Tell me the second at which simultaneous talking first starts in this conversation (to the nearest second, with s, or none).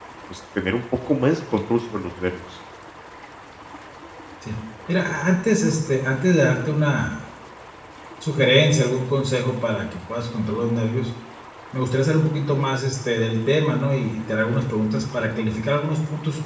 none